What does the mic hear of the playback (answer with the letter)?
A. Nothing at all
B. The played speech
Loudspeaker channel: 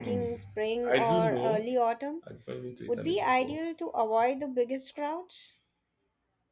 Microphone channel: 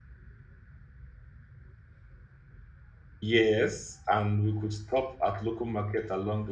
A